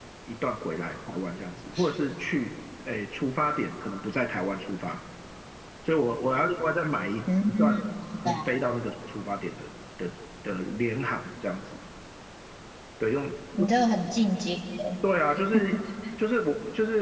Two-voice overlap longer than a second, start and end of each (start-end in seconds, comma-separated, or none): none